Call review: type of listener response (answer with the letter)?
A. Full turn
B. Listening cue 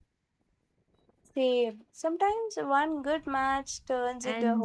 A